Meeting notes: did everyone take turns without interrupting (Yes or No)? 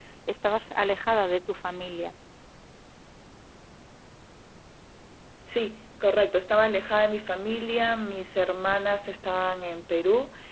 Yes